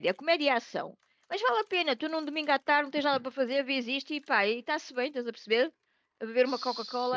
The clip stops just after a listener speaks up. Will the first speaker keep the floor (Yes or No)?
No